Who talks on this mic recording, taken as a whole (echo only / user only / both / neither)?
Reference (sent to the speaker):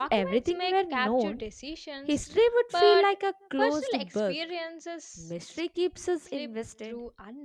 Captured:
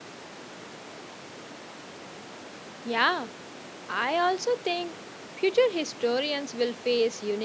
user only